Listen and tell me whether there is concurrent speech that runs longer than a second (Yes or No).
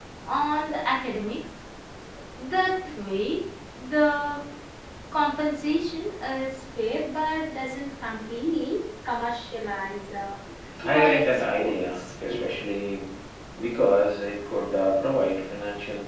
Yes